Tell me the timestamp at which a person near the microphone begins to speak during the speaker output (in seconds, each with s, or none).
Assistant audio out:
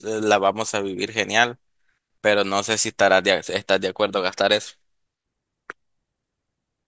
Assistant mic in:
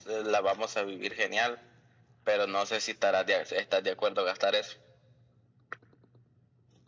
none